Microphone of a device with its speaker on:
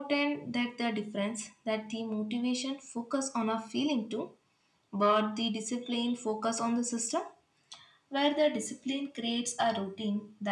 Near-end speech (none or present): none